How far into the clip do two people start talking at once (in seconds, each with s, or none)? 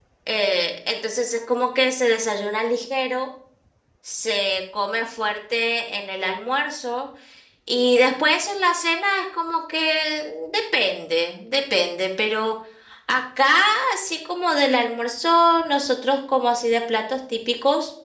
none